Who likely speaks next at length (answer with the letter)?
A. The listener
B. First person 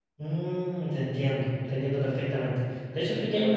B